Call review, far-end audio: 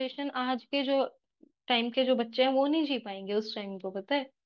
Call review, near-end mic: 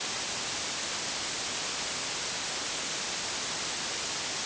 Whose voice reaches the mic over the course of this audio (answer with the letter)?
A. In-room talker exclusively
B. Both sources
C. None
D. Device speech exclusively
C